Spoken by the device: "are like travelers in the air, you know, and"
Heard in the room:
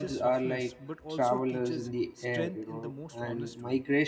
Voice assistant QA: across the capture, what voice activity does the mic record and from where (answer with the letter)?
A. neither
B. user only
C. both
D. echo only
C